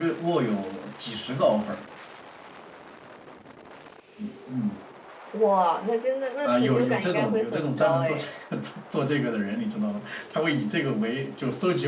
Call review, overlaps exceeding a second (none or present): present